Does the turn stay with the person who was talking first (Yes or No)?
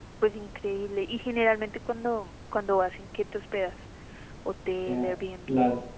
No